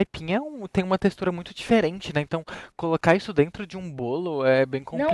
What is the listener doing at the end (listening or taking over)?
taking over